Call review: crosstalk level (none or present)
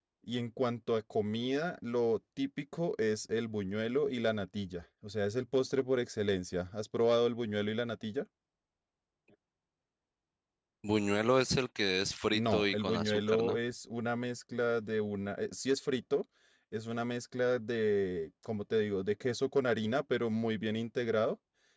present